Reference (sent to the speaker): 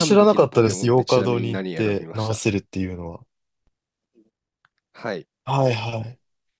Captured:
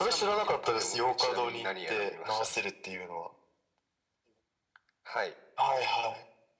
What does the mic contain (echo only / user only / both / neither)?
echo only